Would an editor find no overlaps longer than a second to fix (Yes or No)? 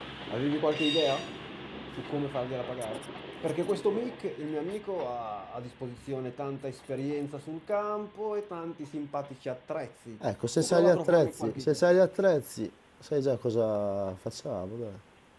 No